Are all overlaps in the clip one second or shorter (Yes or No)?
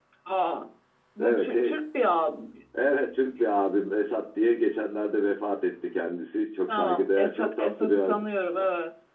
No